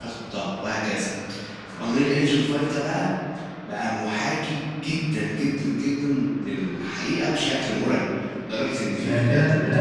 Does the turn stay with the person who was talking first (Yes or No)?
No